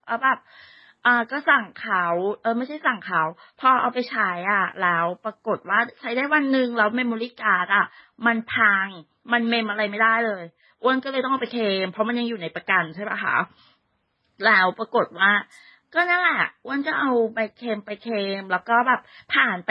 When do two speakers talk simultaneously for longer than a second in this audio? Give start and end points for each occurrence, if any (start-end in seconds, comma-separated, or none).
none